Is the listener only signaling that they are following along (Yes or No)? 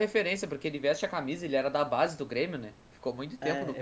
No